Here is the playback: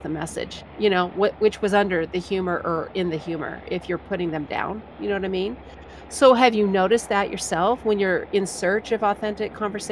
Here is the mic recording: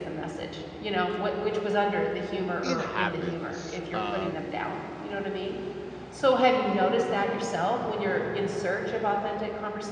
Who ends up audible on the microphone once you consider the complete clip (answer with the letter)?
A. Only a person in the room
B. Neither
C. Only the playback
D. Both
D